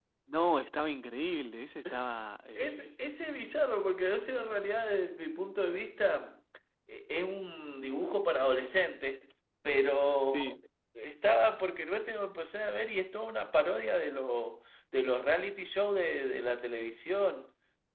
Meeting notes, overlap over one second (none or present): none